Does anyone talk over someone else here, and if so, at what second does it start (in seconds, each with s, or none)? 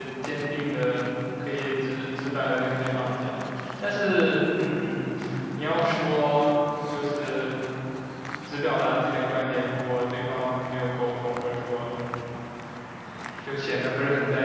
none